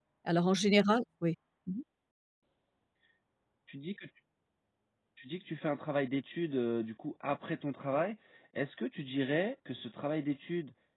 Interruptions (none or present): none